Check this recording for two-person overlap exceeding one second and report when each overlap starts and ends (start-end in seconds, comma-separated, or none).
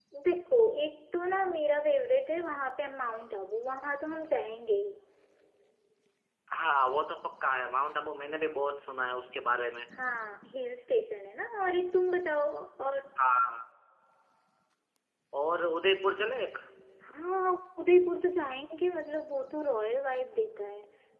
none